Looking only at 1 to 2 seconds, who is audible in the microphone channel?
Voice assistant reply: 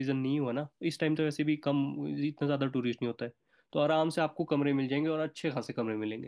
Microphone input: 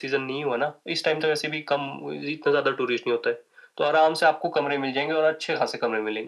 echo only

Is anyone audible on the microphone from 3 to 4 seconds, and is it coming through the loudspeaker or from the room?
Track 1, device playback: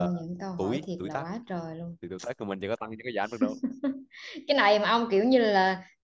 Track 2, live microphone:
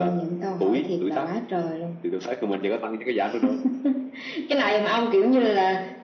echo only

